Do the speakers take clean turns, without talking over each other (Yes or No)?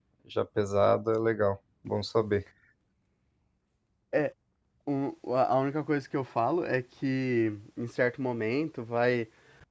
Yes